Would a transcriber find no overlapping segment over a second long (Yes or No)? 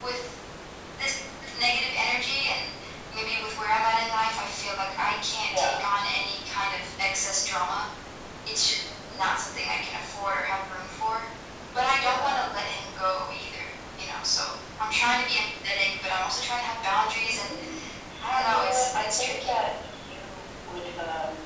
No